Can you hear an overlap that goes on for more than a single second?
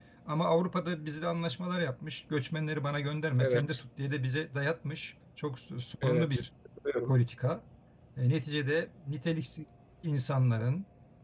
No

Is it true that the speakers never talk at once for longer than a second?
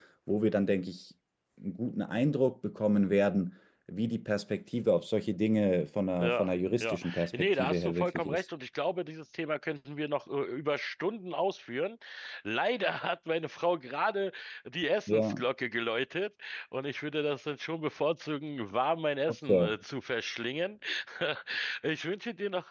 No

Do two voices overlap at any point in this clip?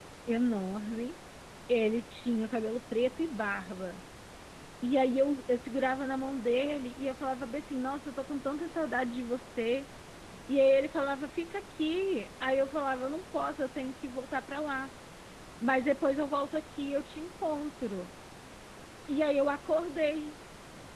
No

